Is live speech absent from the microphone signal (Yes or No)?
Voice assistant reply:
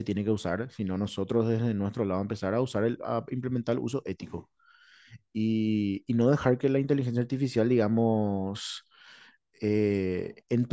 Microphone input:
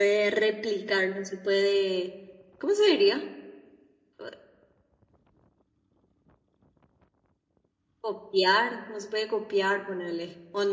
No